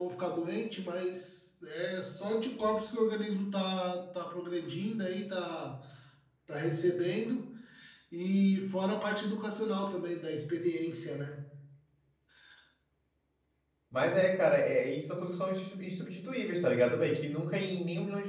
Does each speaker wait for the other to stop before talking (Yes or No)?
Yes